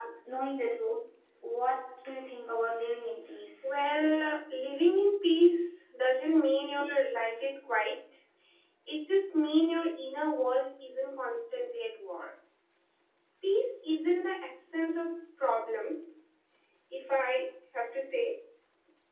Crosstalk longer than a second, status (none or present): none